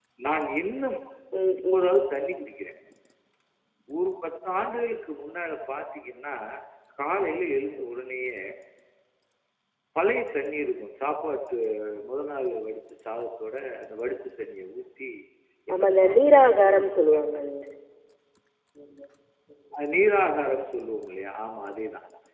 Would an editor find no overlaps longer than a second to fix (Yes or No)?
No